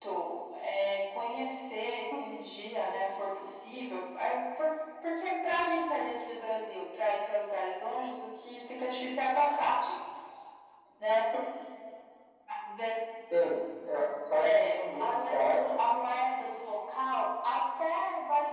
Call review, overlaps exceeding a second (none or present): present